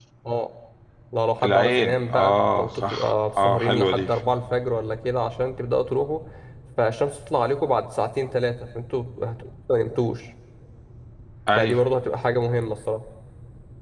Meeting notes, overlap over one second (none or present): present